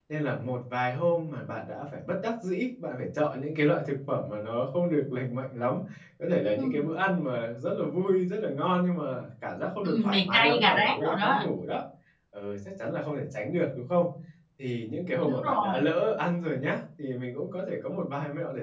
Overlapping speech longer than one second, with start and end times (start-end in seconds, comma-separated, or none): 9.8-11.4